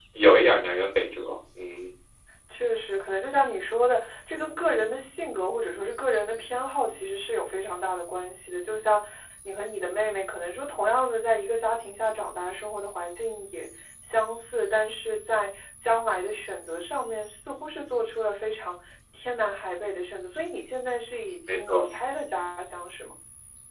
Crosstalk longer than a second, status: none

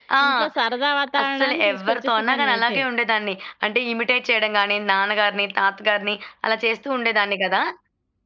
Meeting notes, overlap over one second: present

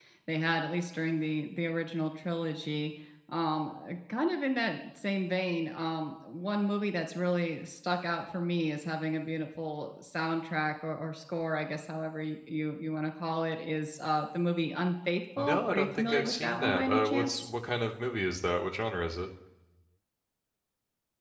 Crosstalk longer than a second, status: present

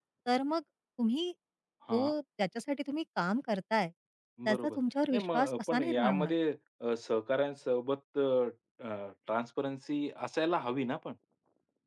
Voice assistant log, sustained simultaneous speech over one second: present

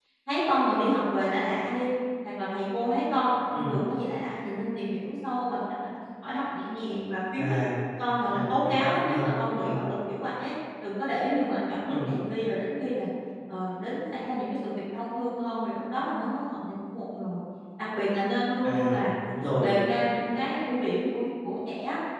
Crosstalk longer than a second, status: present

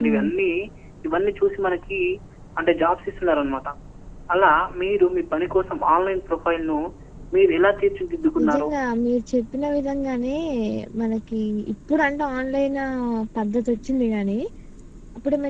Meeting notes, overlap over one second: none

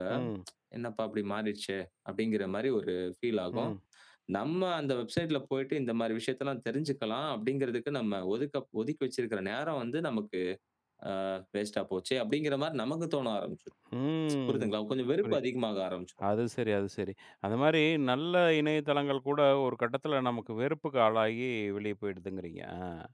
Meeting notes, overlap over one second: none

